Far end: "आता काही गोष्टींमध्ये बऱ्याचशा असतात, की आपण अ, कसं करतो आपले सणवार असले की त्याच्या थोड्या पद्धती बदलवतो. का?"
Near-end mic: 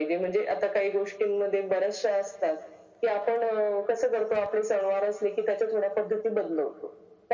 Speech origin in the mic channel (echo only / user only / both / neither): echo only